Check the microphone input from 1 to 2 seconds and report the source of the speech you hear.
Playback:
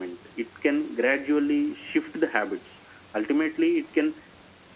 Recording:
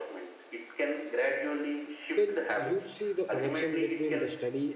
echo only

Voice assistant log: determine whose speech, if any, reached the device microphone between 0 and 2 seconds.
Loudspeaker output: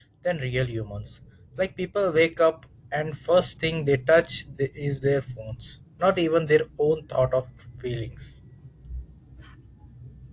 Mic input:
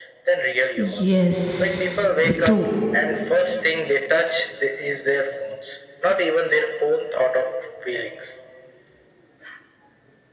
both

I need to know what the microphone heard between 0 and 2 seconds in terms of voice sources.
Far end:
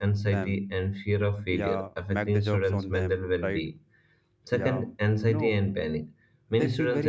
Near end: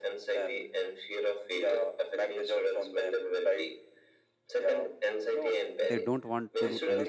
echo only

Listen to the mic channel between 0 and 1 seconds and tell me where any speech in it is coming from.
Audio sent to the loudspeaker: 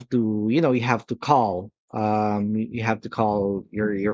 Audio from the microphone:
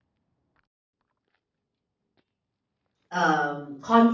neither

